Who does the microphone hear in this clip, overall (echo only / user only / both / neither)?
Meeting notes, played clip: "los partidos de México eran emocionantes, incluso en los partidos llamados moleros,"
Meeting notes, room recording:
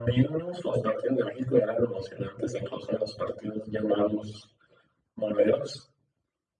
echo only